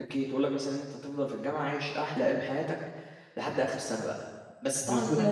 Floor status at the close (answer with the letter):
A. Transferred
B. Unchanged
B